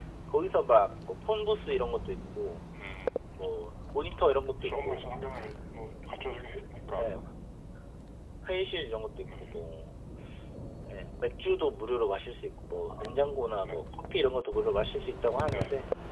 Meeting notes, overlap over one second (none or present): none